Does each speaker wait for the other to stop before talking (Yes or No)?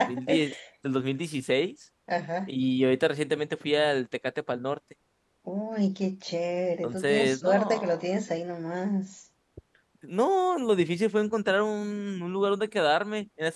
No